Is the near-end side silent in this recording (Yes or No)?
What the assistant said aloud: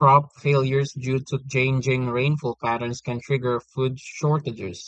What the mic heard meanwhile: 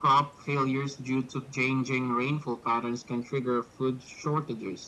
Yes